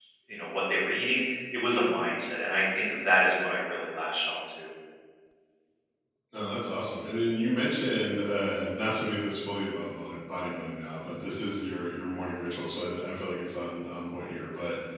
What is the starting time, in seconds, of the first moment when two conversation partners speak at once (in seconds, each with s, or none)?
none